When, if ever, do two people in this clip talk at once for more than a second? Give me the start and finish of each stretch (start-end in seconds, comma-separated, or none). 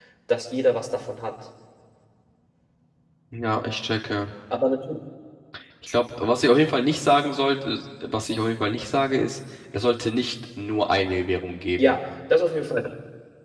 none